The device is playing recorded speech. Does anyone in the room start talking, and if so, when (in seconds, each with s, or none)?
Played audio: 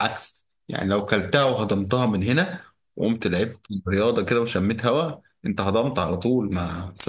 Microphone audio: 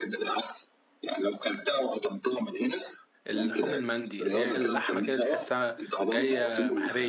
3.3 s